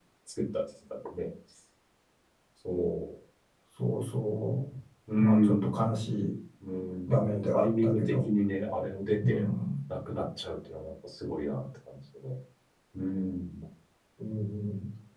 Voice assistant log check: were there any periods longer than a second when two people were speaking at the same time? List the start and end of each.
7.1-8.3

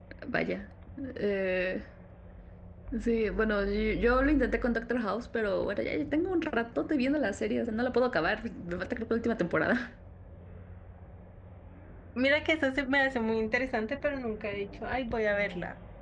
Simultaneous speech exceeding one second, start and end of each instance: none

